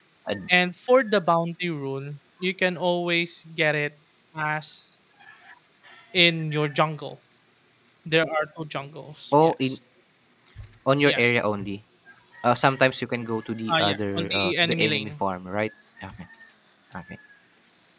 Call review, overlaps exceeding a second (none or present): present